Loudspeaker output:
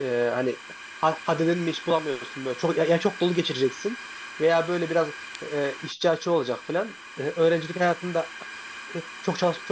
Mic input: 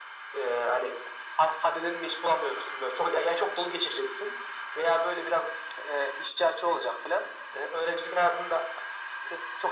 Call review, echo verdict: present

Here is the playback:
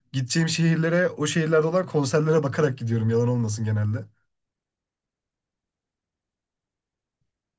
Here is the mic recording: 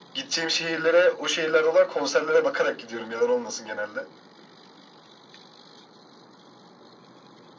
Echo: present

